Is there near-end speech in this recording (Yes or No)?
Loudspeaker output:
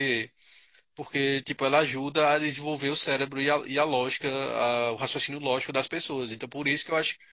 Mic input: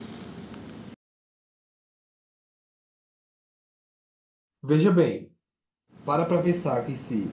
Yes